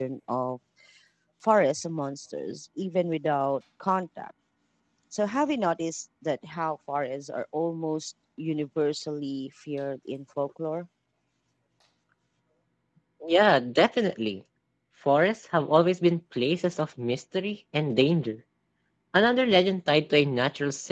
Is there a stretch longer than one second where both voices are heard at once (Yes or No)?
No